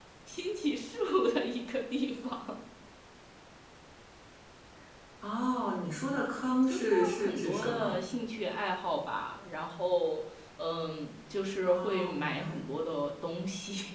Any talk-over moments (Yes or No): Yes